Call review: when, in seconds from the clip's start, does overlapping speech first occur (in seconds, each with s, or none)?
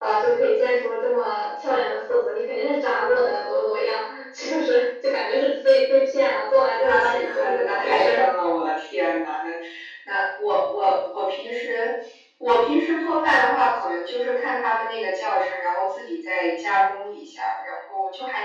6.7 s